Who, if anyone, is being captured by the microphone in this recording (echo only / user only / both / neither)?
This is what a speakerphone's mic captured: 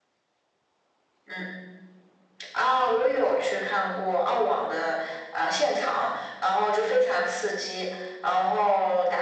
echo only